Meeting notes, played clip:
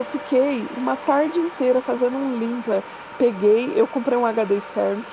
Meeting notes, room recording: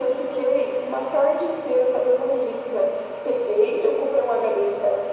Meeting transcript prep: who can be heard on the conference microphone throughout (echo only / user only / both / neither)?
echo only